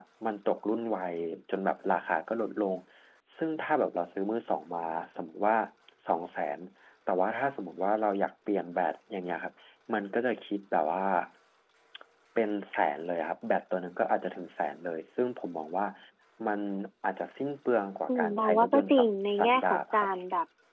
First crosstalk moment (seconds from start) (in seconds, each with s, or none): 18.1 s